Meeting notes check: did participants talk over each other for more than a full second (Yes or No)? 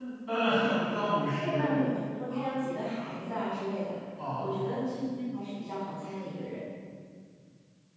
No